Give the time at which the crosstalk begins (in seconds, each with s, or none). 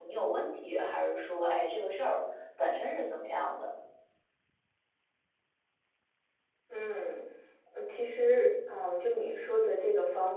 none